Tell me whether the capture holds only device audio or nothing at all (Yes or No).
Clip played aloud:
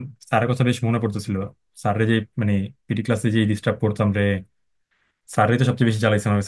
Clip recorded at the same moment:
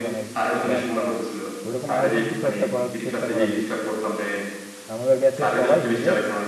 No